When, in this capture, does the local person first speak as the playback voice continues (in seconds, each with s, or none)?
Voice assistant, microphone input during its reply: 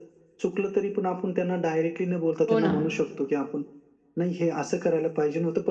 2.5 s